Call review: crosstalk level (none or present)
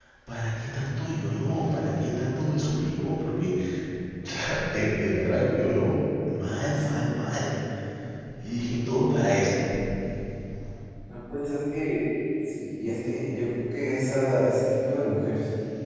none